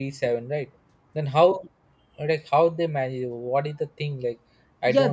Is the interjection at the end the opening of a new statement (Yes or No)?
Yes